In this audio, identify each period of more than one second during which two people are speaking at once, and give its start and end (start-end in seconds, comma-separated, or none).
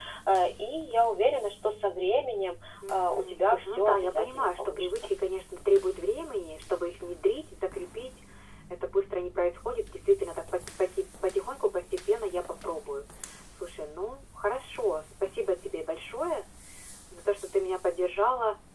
2.9-5.1